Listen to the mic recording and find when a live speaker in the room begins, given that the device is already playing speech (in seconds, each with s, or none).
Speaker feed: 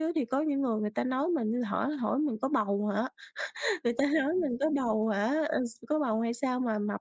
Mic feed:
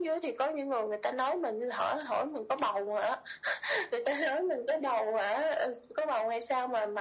none